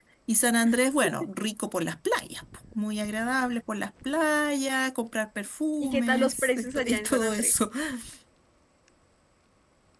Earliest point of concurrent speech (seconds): 5.8 s

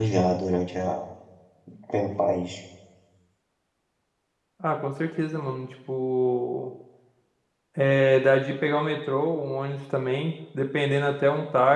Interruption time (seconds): none

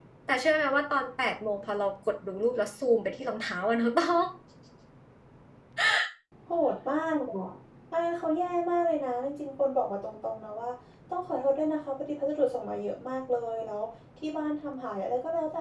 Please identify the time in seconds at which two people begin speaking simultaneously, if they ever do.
none

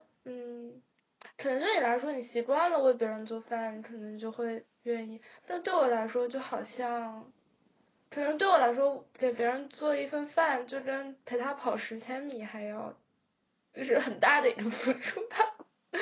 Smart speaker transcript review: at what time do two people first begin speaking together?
none

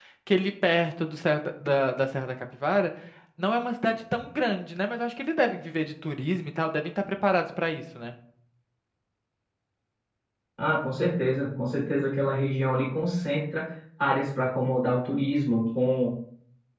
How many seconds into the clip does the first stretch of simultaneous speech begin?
none

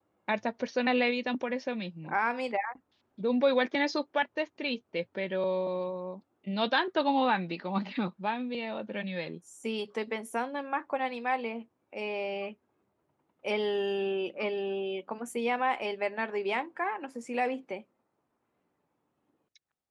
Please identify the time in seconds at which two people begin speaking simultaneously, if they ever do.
none

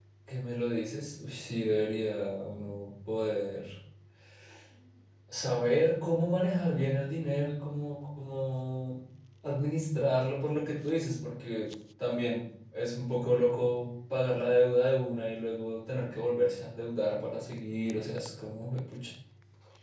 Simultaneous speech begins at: none

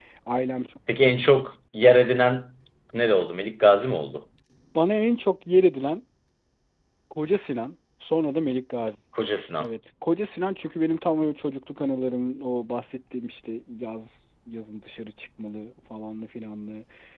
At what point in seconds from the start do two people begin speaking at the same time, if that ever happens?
none

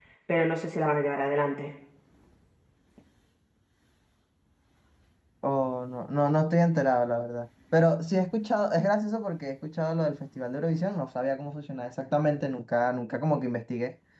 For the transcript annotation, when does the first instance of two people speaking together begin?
none

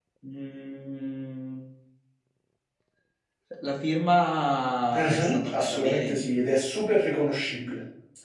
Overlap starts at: 4.9 s

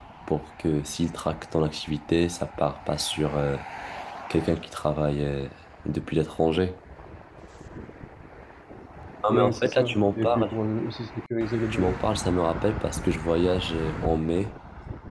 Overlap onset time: 9.3 s

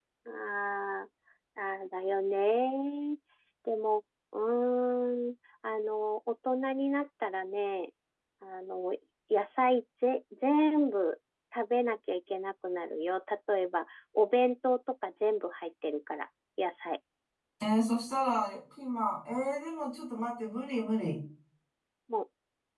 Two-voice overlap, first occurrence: none

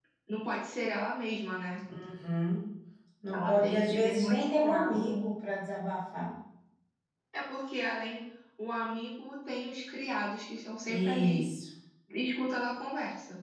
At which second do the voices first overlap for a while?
3.3 s

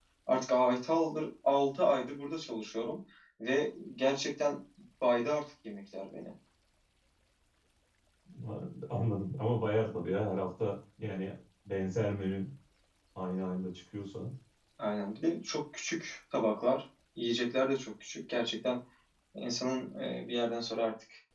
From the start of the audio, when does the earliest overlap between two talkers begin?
none

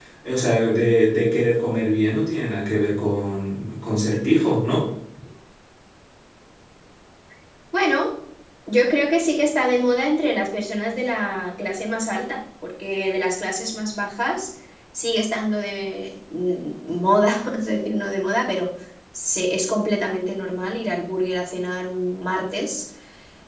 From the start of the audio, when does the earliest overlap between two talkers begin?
none

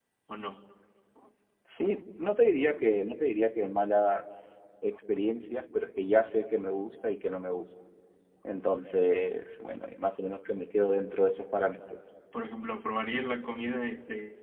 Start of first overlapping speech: none

